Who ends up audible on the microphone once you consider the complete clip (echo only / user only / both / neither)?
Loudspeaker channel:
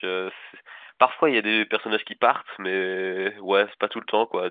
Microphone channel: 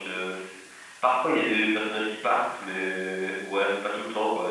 echo only